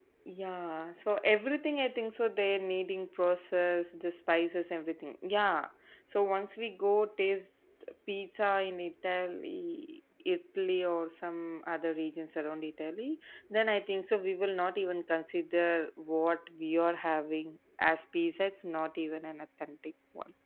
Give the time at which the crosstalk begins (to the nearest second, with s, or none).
none